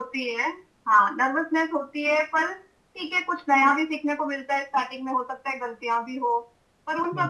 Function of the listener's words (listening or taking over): listening